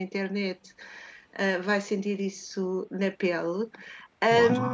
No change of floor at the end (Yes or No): Yes